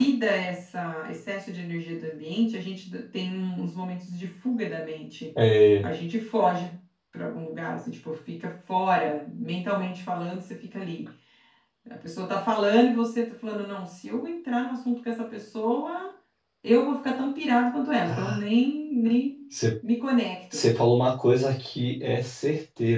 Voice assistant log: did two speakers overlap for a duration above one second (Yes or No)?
No